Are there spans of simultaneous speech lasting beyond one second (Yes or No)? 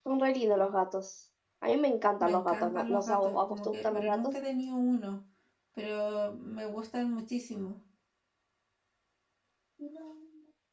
Yes